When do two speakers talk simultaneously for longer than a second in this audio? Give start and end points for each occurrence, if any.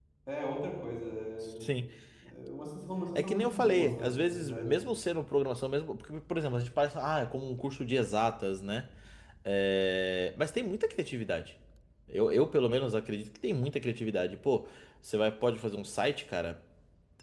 3.1-4.8

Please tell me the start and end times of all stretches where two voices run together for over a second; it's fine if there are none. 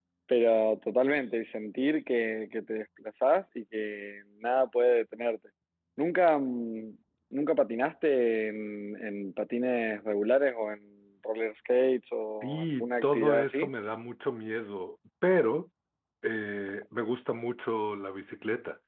12.4-13.7

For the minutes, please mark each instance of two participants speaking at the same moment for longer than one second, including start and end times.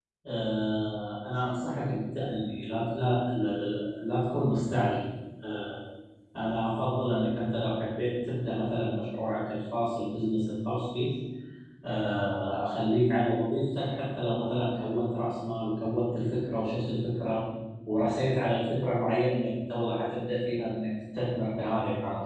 none

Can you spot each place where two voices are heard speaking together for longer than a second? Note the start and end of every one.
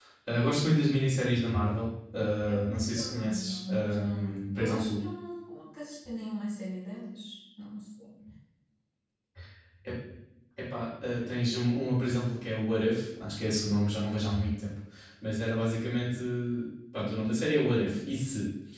2.5-5.0

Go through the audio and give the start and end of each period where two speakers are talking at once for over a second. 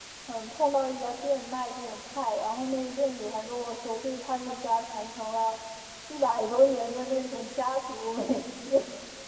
none

